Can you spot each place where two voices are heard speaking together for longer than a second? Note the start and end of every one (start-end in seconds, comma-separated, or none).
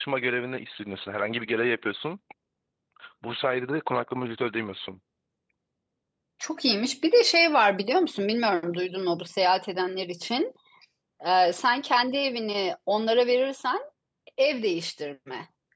none